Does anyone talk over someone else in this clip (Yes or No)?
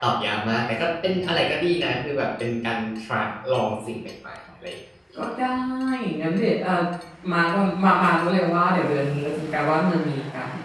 No